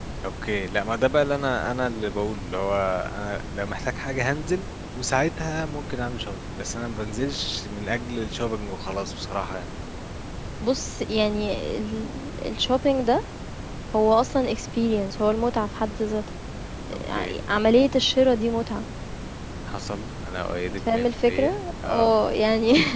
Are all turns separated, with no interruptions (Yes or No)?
No